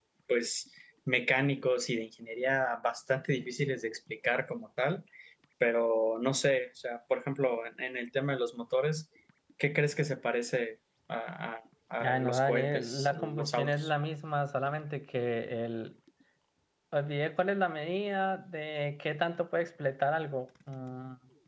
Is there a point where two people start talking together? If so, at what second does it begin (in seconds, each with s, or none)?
12.0 s